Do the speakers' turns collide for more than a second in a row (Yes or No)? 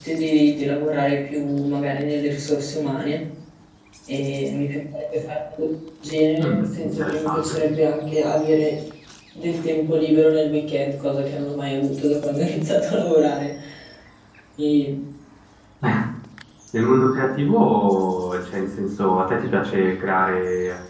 Yes